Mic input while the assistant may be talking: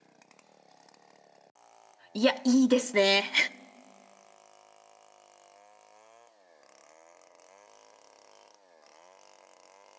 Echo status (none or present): none